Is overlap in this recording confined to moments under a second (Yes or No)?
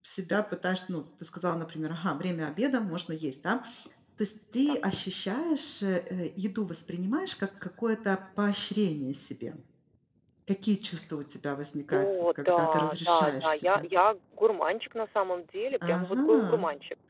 No